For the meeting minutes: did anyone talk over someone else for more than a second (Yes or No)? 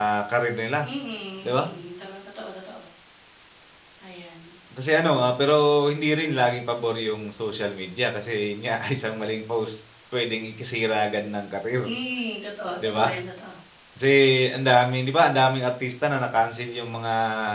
No